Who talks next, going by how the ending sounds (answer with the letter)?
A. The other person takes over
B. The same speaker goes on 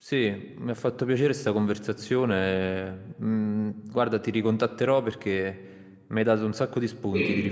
A